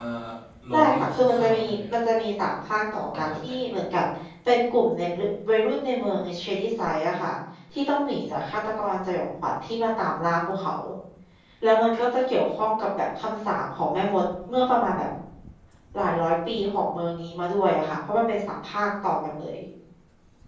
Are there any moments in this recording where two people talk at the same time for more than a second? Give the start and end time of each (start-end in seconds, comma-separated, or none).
0.7-2.0